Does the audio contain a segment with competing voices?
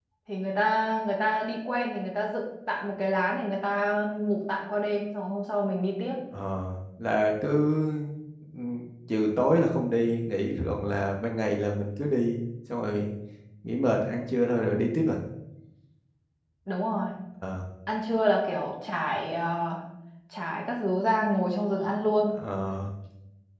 No

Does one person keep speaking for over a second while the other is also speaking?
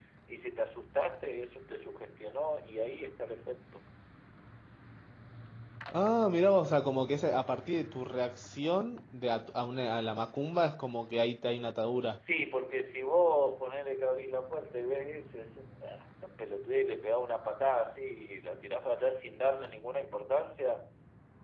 No

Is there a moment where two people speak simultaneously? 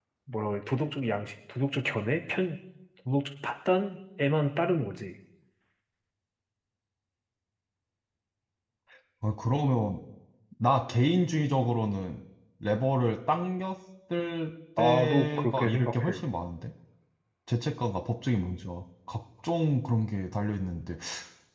Yes, from 14.8 s

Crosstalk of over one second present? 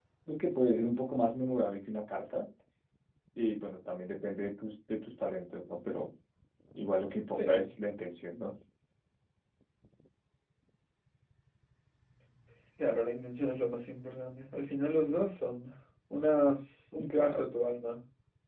No

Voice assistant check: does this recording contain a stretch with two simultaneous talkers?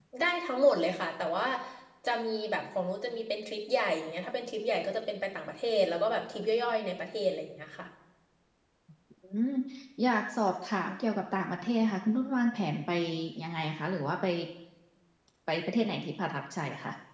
No

